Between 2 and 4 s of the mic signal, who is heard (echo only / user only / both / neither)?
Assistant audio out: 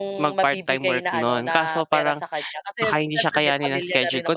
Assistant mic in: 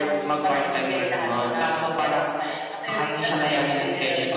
echo only